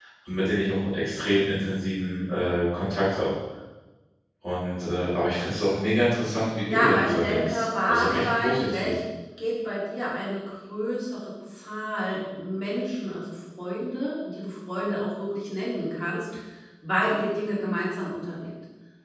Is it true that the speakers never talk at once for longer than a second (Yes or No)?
No